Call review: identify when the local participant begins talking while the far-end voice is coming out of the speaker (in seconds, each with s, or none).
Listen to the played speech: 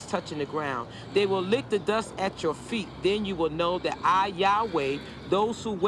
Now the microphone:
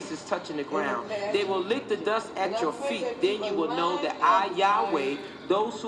0.7 s